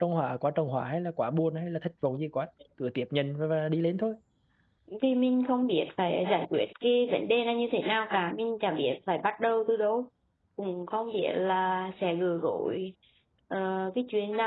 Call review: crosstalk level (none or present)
none